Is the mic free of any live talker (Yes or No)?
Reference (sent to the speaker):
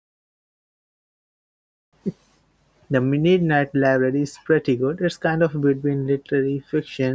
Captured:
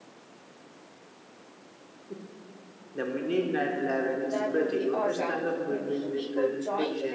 No